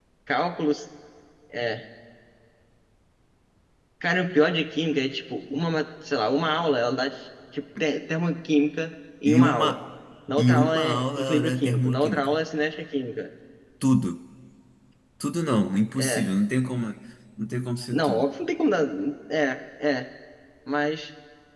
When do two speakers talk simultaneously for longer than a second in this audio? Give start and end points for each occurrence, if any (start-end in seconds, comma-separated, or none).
10.4-12.3